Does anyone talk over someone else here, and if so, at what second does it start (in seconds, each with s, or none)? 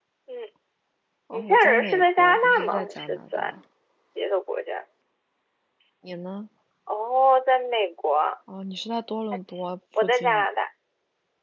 1.3 s